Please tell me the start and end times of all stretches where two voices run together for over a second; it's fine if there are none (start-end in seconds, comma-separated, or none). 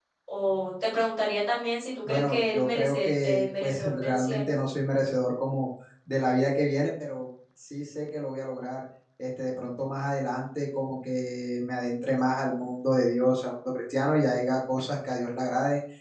2.0-4.5